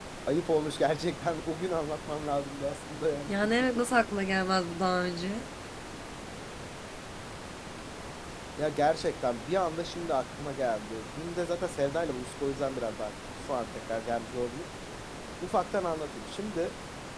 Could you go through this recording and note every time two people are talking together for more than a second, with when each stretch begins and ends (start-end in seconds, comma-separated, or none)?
none